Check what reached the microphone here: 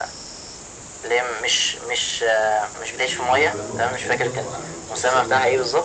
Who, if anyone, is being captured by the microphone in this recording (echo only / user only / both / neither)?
both